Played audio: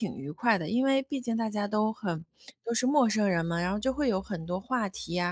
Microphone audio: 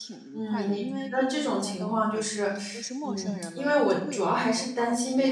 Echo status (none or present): present